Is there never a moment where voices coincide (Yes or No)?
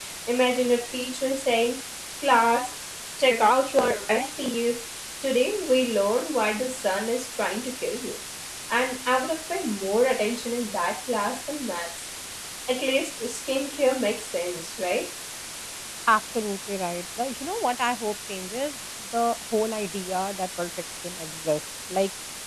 Yes